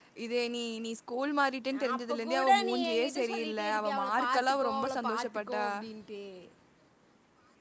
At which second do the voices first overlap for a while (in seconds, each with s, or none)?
1.7 s